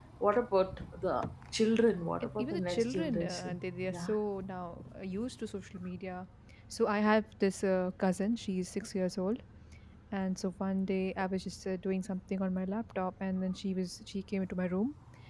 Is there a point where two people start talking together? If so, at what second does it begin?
2 s

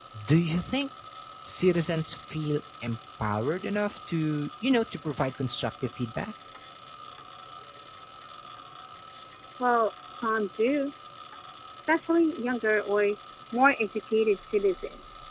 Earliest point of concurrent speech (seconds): none

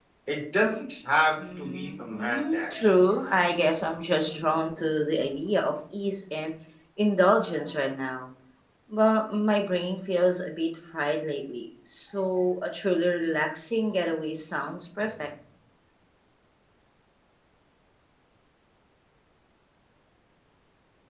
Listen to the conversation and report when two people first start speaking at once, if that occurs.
1 s

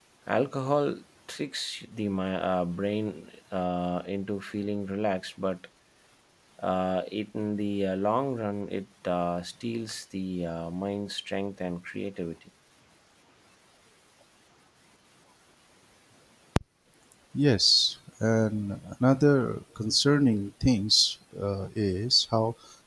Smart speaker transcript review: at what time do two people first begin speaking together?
none

